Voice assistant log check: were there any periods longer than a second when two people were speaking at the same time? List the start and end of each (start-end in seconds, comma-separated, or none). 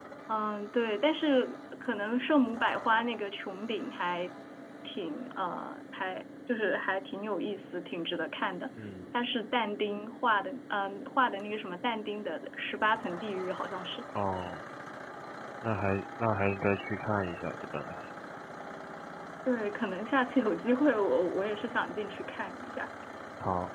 none